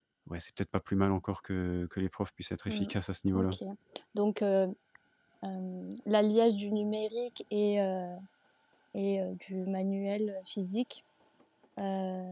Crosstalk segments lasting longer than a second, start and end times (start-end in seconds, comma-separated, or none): none